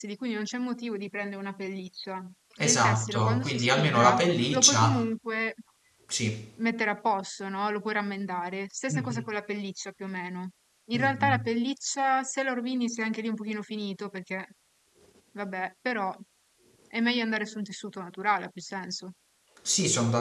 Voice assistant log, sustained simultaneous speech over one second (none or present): present